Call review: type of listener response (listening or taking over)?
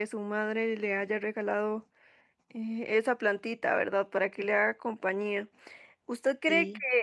listening